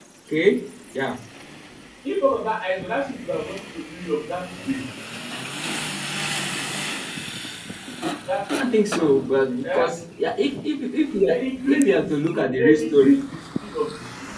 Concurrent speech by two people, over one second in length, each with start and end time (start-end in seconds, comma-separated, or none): 11.2-13.2